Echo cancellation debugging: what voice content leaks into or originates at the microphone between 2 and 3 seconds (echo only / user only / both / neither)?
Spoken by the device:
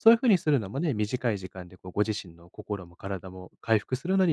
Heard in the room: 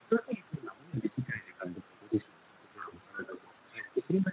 echo only